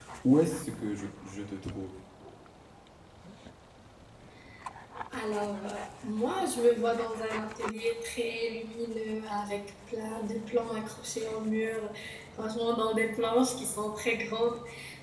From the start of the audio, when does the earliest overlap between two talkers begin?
none

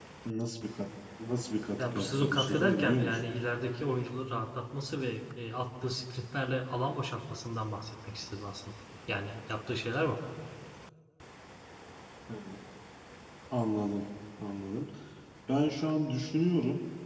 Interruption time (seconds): 2 s

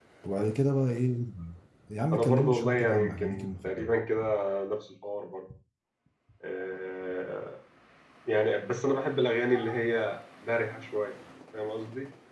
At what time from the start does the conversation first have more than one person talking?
2 s

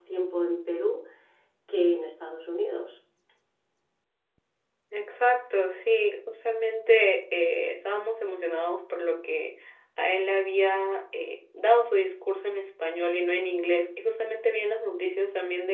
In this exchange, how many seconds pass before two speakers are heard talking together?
none

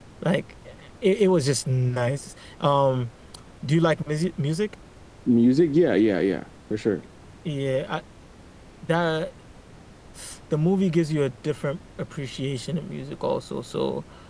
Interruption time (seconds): none

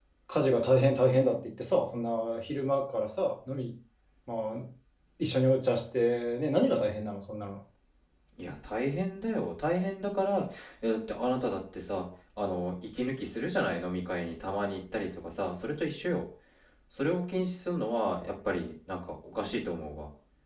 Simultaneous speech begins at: none

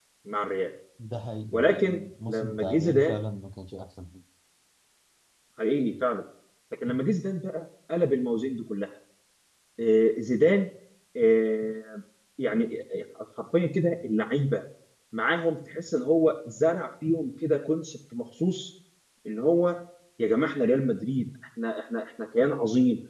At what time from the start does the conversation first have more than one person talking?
2 s

